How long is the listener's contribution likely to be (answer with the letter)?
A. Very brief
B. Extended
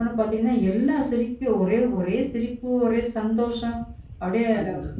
A